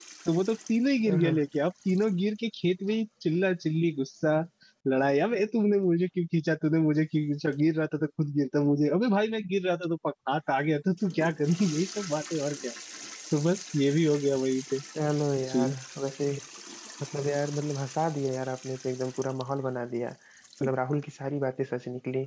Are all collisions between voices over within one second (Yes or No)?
Yes